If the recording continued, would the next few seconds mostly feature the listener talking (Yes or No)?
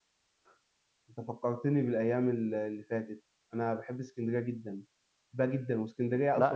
No